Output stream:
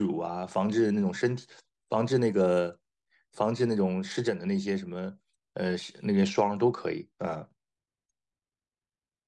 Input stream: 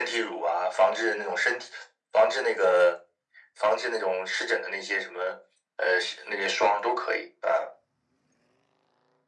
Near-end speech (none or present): none